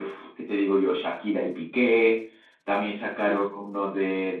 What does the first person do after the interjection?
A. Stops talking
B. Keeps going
B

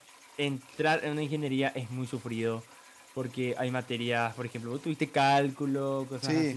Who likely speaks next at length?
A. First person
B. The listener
A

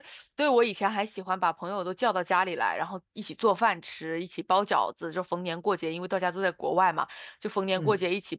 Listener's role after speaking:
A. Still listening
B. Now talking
A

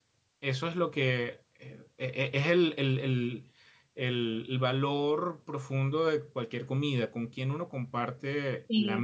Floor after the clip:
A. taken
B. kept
A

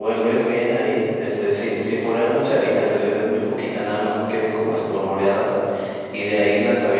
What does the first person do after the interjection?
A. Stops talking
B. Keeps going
B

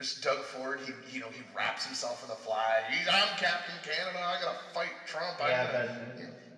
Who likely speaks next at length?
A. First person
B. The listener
B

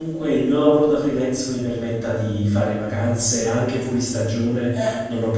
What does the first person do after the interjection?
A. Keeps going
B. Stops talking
A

